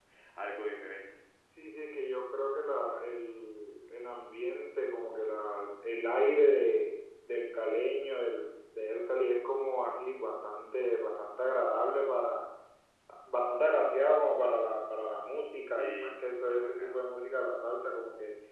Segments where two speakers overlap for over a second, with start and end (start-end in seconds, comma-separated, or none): 15.8-17.0